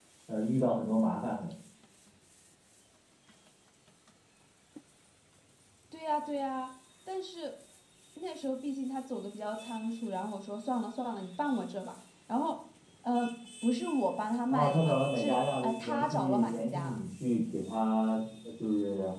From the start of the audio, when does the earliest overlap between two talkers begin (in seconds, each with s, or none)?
14.5 s